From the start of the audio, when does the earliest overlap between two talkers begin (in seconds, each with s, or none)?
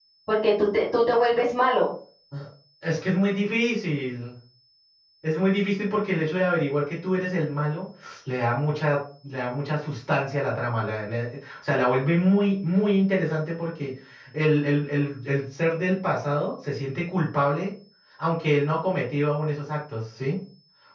none